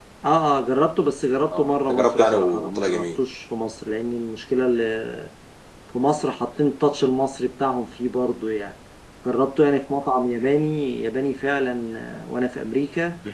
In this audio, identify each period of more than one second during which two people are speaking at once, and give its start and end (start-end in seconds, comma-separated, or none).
1.5-3.2